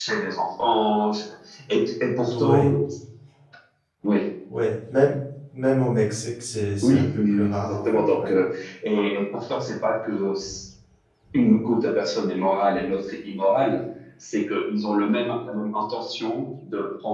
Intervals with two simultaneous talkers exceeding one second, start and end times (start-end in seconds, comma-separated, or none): 6.8-8.3